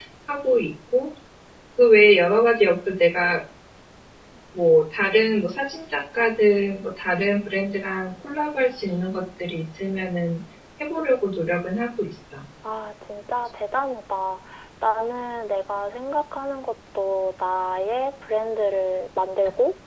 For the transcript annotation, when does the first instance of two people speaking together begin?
none

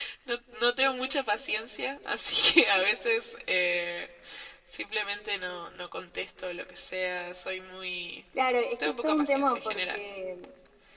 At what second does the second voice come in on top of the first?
8.8 s

